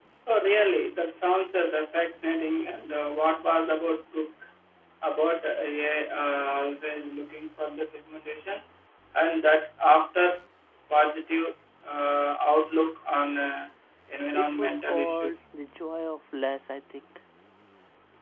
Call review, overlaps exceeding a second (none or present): present